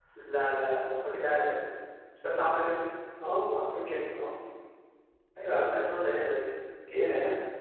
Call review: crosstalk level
none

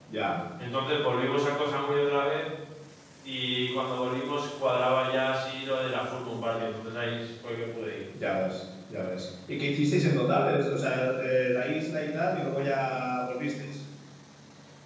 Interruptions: none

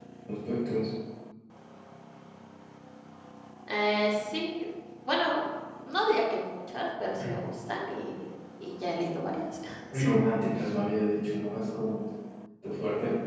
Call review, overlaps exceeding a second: none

